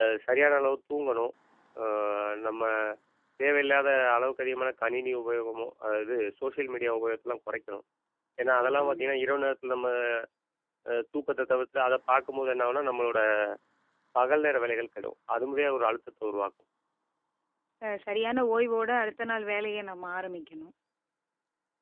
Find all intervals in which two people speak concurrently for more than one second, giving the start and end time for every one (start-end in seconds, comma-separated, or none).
none